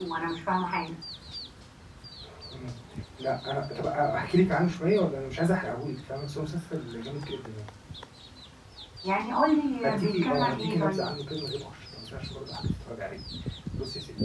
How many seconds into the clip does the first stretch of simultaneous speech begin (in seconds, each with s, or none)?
9.8 s